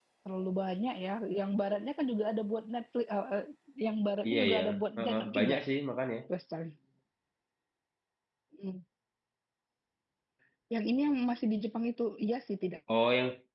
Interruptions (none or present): present